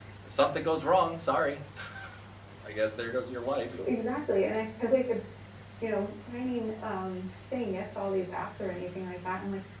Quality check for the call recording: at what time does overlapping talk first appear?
none

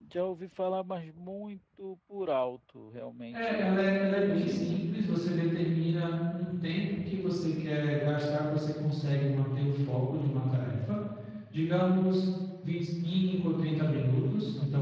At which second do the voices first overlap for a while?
3 s

